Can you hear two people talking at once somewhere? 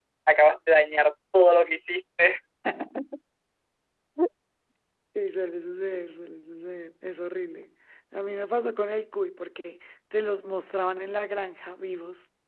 No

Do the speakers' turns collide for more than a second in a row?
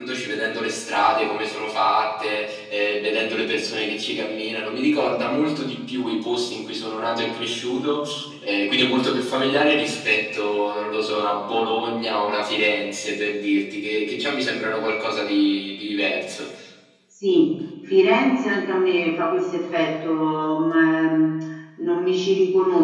No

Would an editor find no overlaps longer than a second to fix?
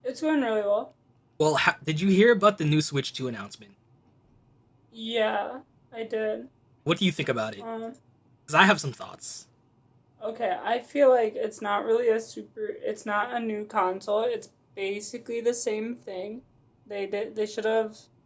Yes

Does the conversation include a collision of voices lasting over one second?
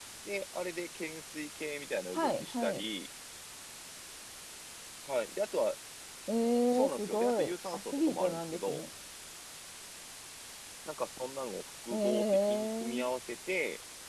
Yes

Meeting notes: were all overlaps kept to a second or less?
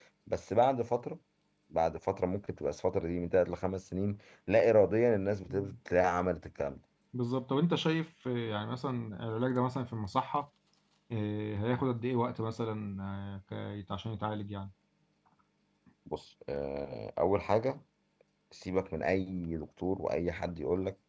Yes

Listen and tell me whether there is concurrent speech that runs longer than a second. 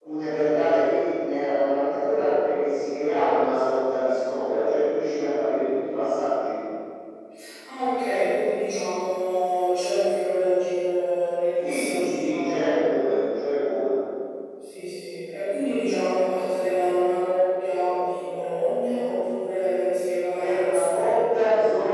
Yes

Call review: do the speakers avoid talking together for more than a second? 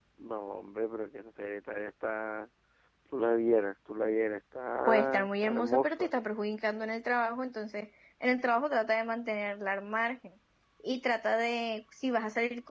No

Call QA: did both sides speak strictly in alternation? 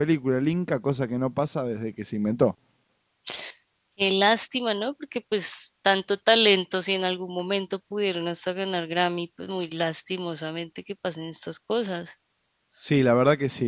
Yes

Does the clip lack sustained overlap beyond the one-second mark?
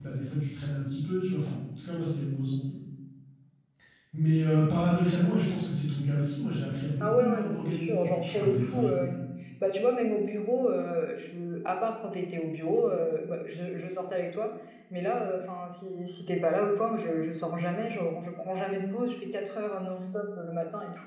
No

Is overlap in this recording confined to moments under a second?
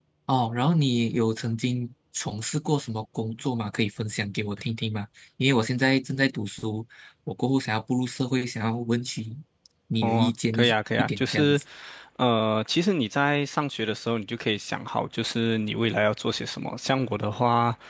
No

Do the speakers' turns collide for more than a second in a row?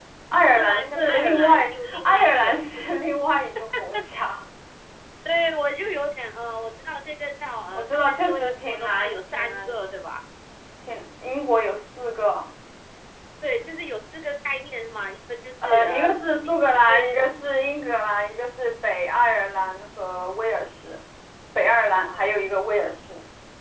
Yes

